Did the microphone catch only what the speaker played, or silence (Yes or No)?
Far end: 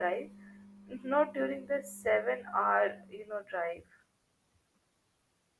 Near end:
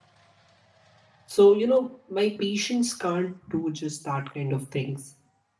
No